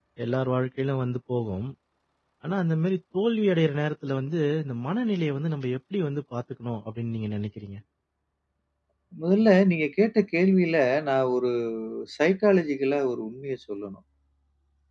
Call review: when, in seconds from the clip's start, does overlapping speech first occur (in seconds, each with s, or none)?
none